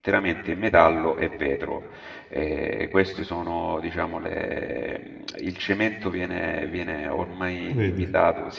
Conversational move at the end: listening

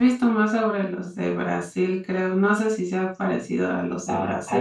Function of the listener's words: taking over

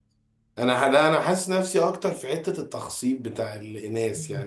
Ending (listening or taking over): listening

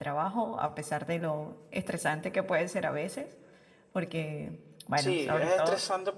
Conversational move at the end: taking over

